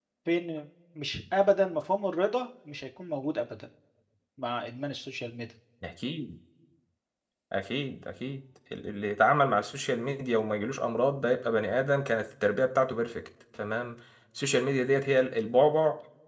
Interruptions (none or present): none